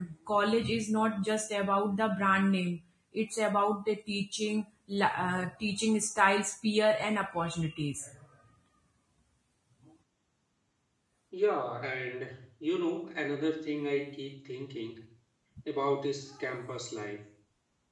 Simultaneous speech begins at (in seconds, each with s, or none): none